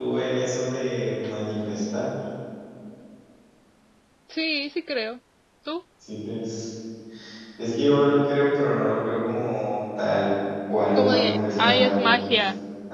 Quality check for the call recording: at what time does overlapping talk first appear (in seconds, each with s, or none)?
10.9 s